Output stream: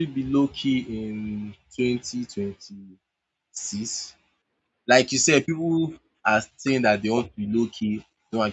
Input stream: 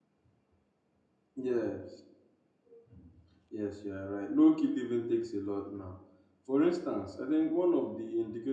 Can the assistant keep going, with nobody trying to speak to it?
No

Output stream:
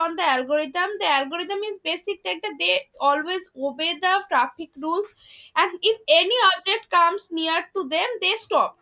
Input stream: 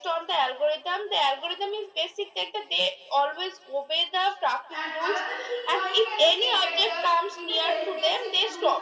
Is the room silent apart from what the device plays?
No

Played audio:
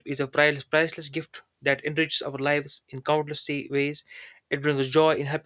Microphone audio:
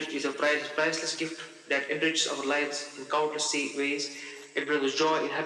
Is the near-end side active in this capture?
No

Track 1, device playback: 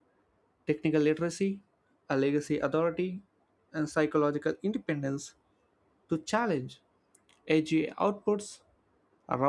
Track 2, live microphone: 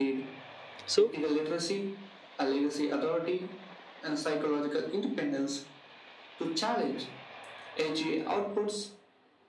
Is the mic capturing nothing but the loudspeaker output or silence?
No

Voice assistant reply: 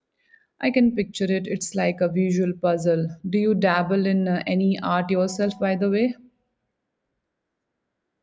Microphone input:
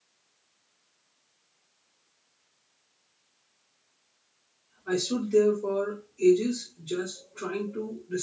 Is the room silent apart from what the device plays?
No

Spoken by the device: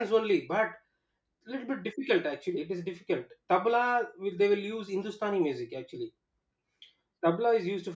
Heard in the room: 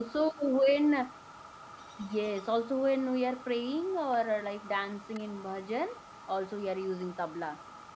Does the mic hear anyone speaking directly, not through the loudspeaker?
Yes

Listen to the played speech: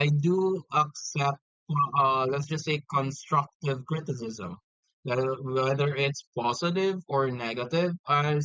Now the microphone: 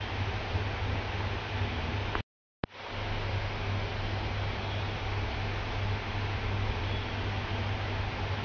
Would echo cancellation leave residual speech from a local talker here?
No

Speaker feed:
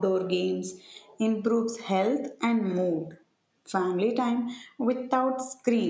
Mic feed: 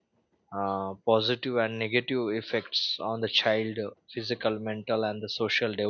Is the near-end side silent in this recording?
No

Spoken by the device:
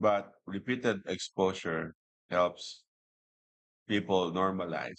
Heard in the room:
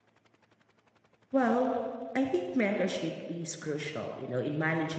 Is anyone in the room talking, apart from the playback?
Yes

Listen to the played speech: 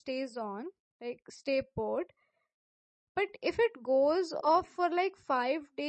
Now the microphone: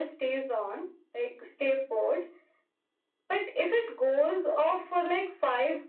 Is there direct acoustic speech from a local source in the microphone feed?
No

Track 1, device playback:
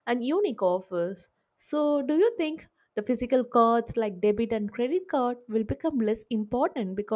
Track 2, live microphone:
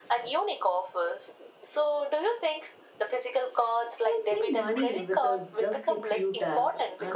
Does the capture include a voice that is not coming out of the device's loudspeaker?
Yes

